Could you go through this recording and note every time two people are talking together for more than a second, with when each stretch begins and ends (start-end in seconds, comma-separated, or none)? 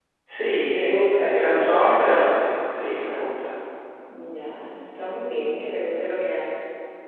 0.7-2.3